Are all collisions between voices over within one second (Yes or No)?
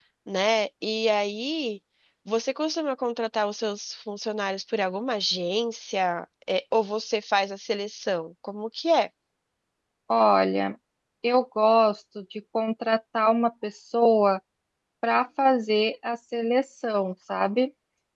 Yes